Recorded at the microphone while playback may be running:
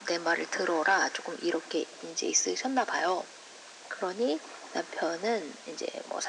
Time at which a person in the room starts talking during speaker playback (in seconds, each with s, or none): none